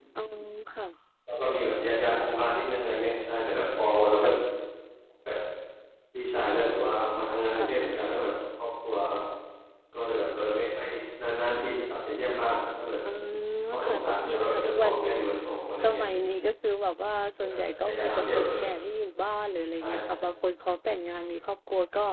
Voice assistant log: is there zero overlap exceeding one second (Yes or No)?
No